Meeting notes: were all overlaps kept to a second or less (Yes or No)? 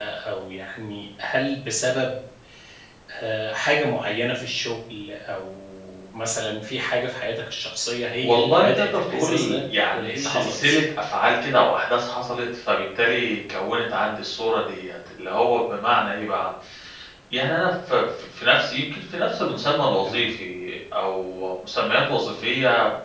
No